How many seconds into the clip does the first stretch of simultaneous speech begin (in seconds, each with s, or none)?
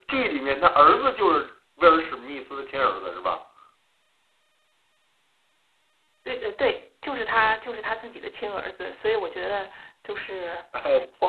none